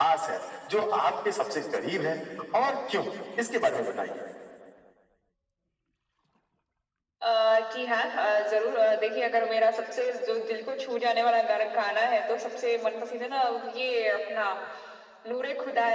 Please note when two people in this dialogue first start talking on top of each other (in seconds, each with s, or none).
none